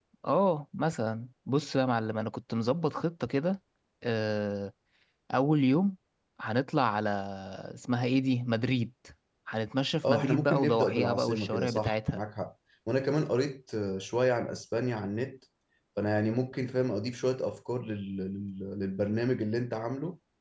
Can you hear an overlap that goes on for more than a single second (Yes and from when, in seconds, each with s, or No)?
Yes, from 10.1 s